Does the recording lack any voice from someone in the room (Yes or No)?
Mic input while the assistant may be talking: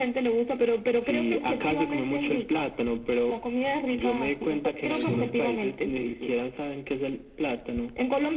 No